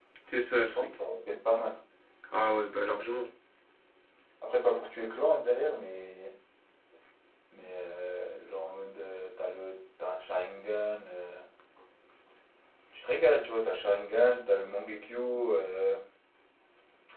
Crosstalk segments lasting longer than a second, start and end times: none

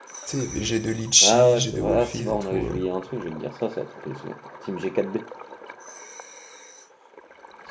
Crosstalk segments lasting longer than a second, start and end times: 1.2-2.9

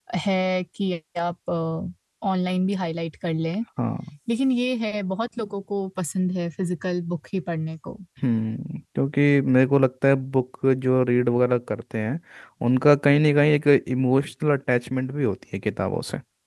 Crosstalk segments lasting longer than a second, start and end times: none

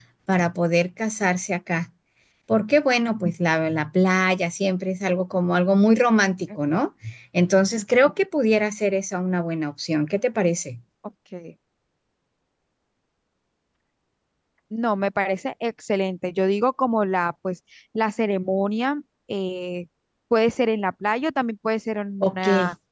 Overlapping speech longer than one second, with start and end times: none

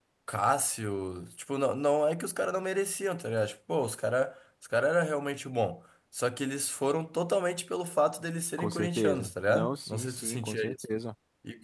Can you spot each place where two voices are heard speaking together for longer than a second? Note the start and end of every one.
8.6-10.6

